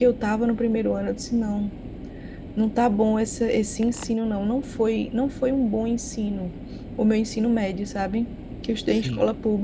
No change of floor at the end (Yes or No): Yes